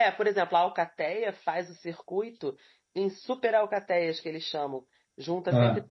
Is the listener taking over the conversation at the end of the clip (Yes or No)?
No